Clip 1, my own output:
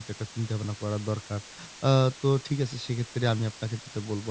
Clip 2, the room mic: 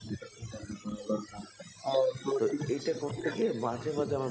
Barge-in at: 2.4 s

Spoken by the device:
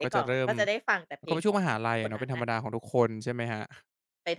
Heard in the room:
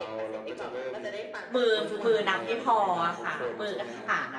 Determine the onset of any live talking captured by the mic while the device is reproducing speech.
1.5 s

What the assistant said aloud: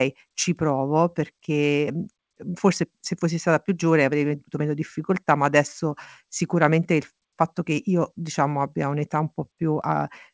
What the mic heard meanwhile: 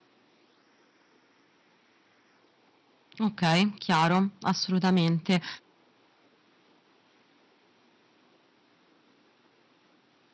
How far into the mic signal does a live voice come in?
3.2 s

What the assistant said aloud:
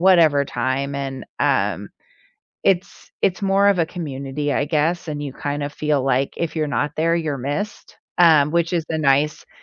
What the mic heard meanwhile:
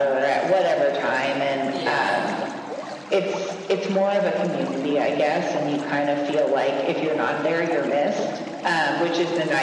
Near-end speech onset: 1.7 s

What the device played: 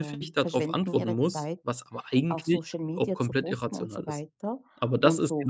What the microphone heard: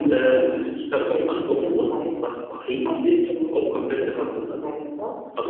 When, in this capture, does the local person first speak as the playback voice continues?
none

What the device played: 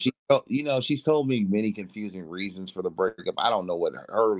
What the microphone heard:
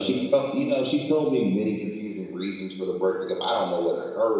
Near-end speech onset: none

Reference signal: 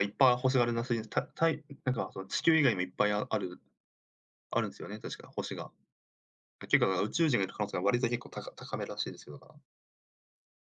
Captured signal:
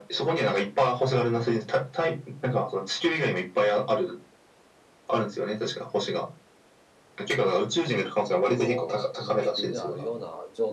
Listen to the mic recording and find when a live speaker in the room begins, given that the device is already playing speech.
8.4 s

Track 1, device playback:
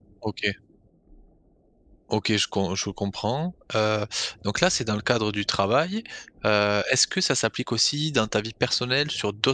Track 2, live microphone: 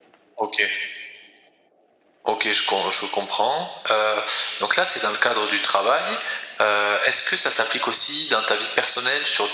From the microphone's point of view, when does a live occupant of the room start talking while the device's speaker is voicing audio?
none

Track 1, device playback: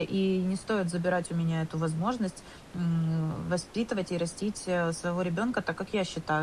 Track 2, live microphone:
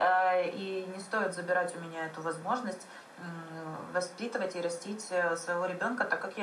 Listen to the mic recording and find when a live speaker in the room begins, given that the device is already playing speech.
none

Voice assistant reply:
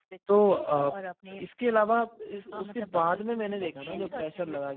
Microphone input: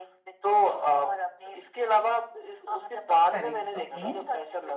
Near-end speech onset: 3.3 s

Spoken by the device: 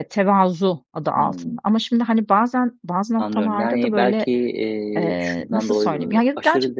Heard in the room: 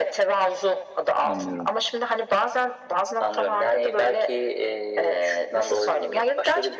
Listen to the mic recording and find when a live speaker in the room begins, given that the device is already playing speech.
1.2 s

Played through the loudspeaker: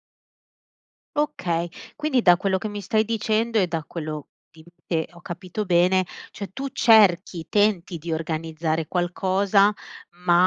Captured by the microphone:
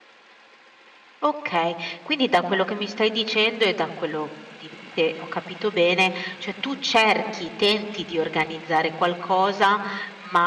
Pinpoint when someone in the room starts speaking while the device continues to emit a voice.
none

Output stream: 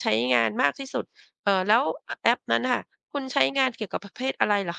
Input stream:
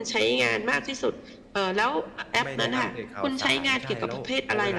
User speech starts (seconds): 2.4 s

